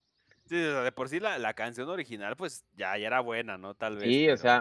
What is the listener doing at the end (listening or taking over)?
taking over